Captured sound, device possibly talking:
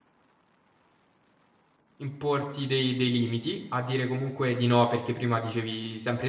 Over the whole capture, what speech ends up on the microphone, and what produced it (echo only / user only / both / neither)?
user only